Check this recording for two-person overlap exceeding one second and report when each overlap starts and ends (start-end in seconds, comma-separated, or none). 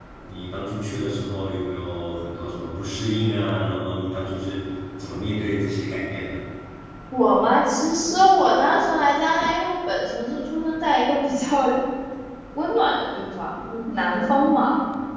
none